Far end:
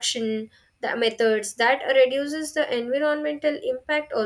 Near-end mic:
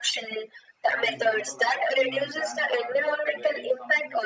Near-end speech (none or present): present